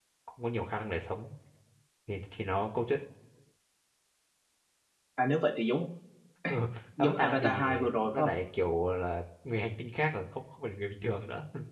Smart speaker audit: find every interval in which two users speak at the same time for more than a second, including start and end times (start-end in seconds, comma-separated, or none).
7.0-8.3